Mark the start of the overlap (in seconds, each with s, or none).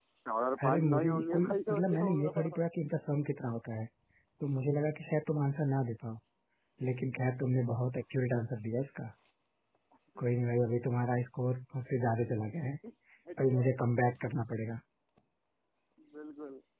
0.6 s